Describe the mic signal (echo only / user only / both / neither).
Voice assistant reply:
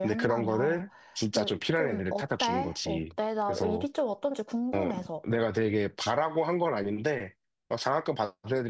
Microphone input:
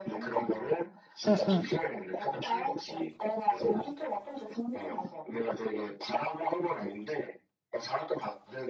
both